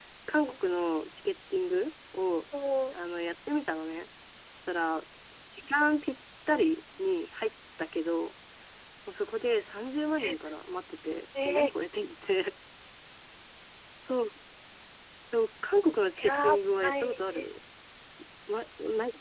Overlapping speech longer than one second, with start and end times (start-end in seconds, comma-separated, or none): 16.2-17.5